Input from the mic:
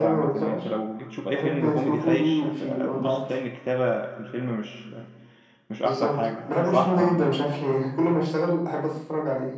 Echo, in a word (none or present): present